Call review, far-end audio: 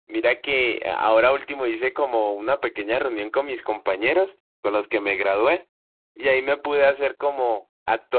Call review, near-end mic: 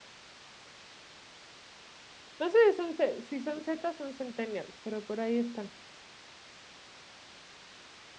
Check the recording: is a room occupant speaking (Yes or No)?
Yes